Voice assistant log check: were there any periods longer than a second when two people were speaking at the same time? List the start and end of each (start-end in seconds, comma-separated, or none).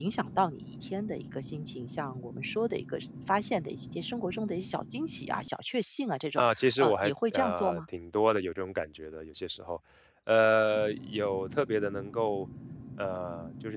6.4-7.8